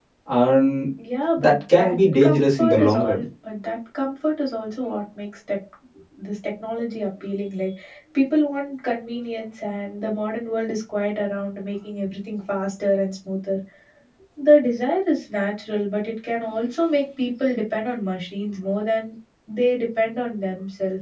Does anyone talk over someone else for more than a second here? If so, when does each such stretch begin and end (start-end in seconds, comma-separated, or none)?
1.4-3.2